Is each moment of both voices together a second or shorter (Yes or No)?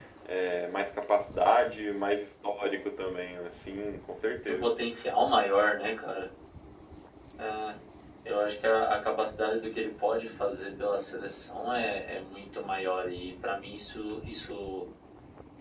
Yes